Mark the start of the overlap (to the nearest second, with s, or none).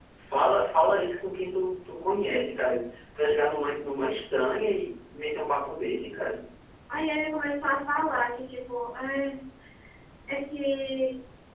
none